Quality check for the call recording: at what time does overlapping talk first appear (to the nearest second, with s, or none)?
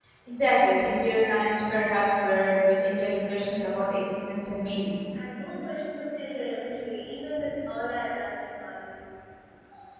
none